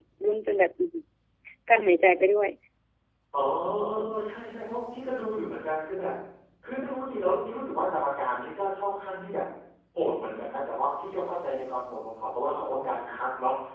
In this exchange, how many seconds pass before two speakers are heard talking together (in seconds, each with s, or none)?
none